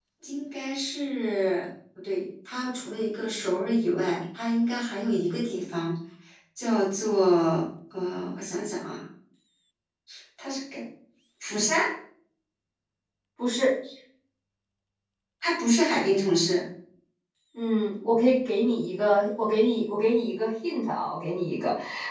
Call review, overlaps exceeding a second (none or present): none